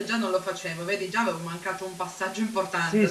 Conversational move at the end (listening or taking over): taking over